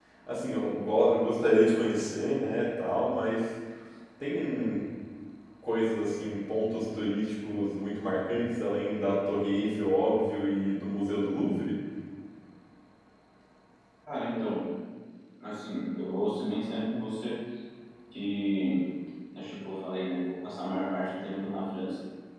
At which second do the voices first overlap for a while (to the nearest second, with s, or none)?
none